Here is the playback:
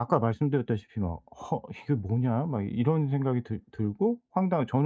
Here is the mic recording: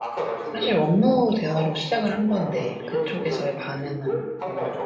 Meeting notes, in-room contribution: present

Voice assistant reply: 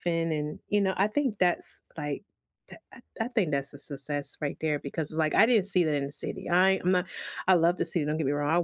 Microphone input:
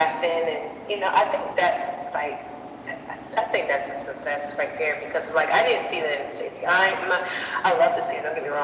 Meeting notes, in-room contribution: none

